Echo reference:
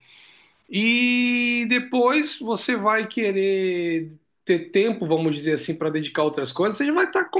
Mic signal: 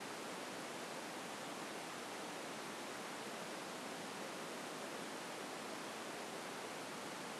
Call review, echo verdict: none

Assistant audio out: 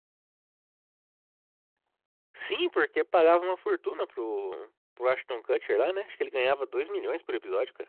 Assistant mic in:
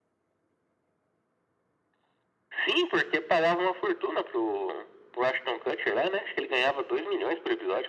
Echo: present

